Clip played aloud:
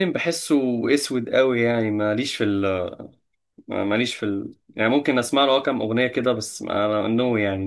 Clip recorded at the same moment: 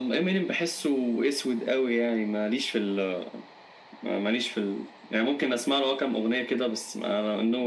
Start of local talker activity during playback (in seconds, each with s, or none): none